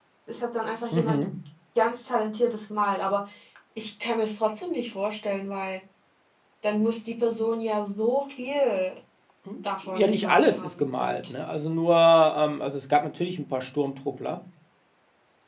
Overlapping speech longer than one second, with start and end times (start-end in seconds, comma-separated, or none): 9.8-11.3